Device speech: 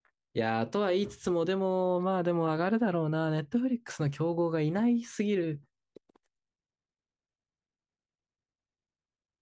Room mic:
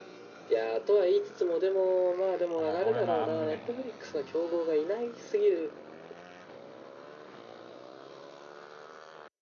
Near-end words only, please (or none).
あ、まあ、俺はまあ、あんま見ないけど。うん。